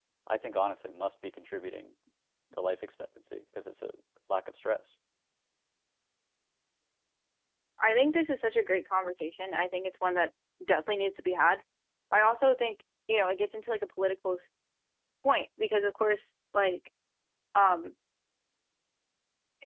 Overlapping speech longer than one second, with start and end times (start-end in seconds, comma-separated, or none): none